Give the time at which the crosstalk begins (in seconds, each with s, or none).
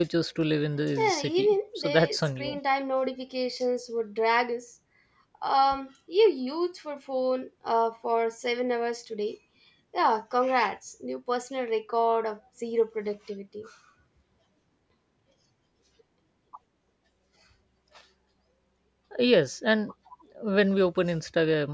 1.0 s